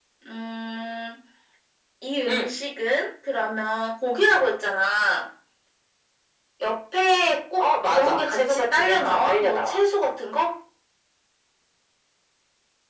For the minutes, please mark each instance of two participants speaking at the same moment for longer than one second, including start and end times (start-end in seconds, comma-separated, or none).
7.6-9.8